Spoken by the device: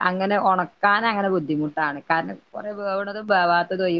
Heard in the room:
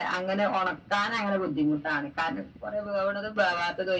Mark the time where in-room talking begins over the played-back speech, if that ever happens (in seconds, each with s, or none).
none